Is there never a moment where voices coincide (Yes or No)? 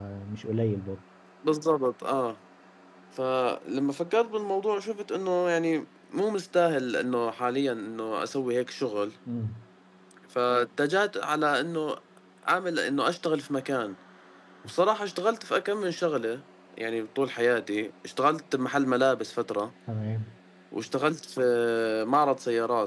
Yes